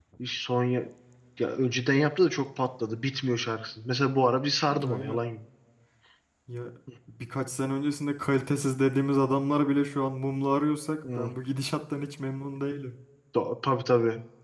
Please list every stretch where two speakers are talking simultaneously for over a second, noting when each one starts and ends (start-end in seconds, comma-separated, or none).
none